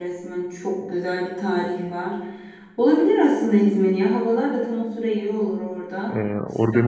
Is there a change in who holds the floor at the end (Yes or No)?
Yes